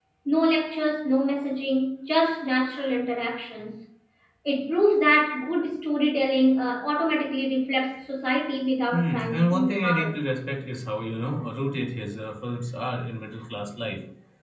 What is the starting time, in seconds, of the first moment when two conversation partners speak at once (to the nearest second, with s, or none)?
9 s